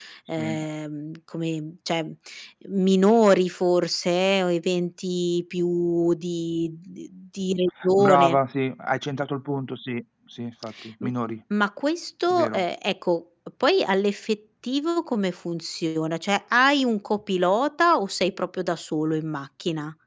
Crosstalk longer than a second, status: none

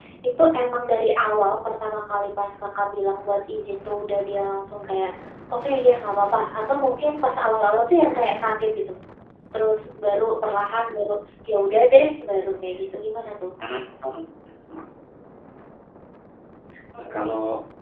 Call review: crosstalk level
none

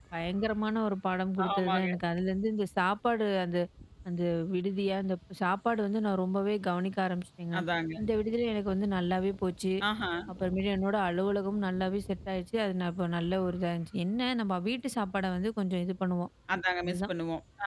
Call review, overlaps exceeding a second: none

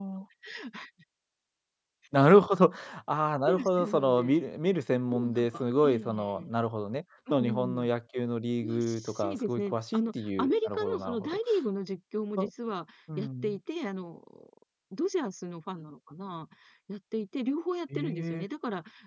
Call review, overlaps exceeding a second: present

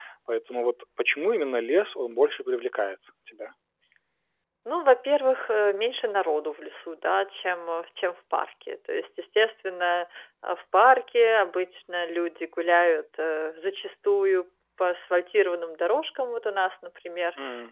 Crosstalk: none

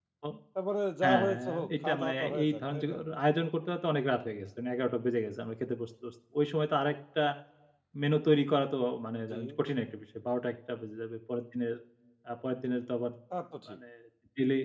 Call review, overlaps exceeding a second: present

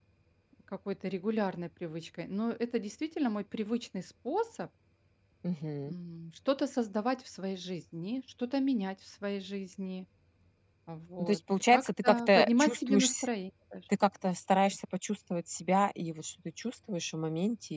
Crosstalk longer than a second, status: present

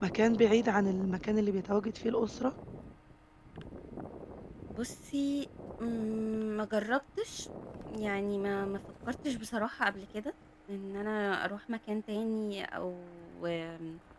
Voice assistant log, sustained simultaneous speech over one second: none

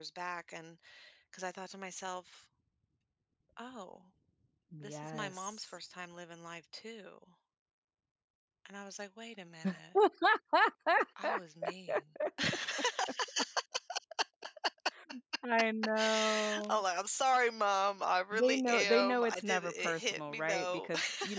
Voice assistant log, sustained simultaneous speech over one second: present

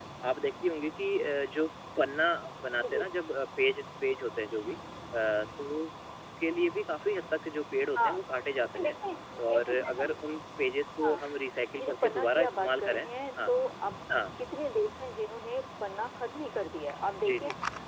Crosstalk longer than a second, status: present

